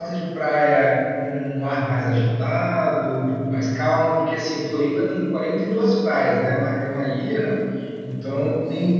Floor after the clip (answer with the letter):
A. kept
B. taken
A